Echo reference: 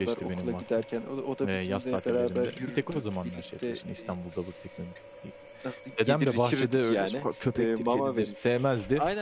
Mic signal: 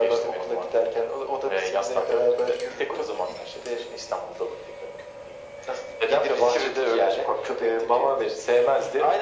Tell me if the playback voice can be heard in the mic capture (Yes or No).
Yes